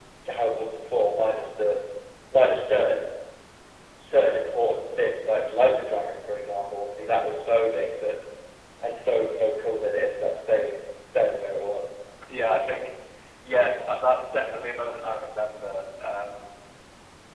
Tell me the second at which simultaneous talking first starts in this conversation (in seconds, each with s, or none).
none